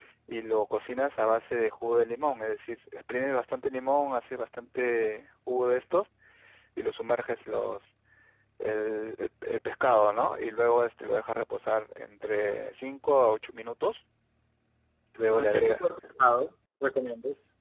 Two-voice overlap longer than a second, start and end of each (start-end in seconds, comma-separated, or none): none